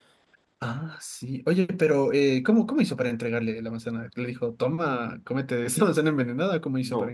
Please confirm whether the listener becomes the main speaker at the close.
Yes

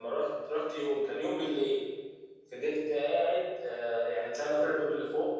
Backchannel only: Yes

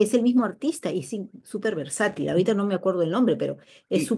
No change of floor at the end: No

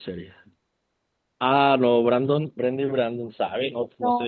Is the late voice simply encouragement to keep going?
No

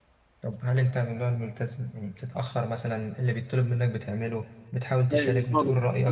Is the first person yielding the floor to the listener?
Yes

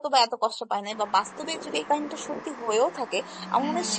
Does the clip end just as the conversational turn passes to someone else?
No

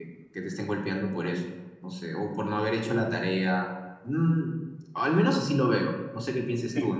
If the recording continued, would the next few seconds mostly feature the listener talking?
No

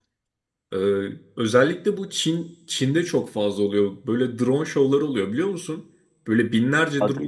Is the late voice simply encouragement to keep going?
Yes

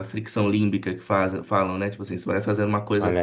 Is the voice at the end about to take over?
No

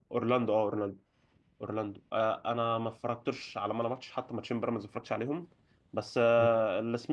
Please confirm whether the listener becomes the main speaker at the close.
No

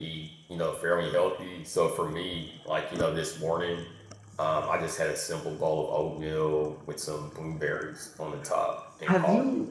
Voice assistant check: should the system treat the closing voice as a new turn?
Yes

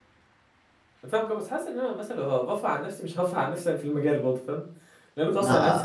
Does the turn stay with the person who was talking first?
No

